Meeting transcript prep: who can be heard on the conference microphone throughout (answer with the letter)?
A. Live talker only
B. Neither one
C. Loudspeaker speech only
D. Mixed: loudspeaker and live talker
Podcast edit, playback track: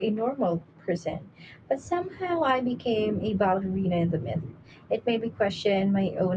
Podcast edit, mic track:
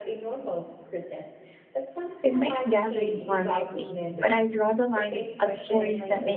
D